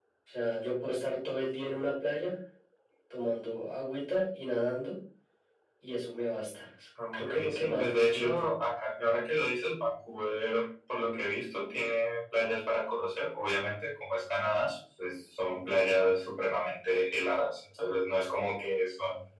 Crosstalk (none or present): present